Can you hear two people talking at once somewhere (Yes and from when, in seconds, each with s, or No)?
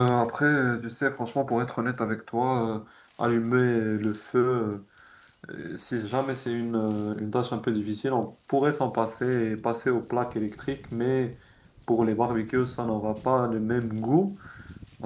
No